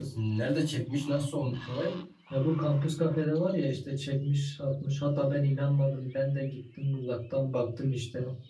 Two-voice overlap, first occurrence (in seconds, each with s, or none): none